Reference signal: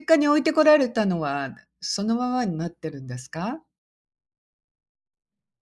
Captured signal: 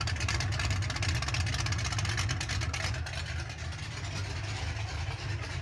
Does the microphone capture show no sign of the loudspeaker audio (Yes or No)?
Yes